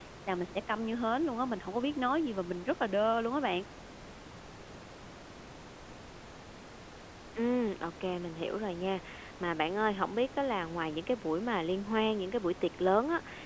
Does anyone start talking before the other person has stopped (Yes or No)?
No